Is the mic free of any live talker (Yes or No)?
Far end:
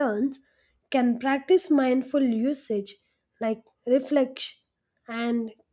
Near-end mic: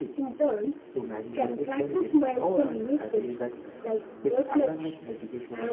No